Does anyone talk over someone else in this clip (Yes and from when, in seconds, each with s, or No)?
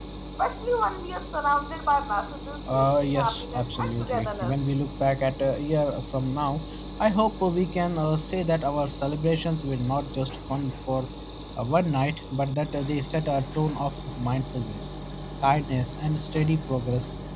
Yes, from 2.7 s